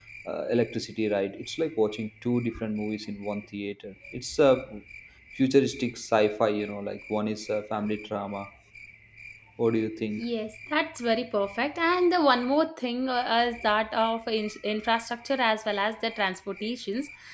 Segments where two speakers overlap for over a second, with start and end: none

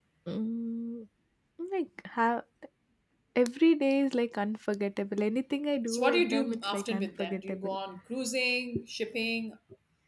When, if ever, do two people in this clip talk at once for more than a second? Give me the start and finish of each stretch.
5.9-7.8

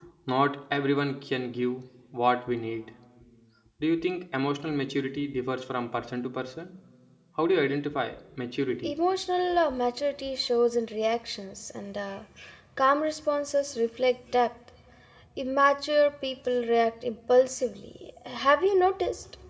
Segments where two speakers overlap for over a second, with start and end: none

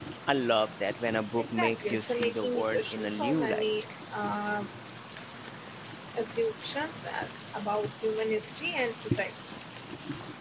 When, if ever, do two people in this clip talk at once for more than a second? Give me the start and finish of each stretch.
1.4-3.7

